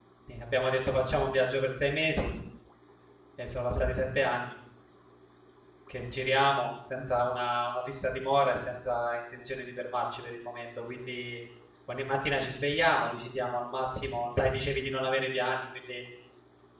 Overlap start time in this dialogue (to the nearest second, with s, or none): none